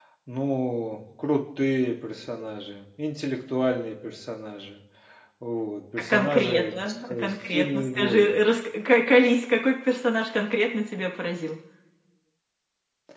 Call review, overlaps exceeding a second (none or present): present